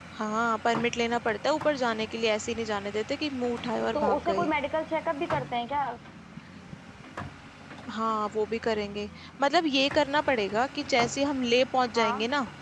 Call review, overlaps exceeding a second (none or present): none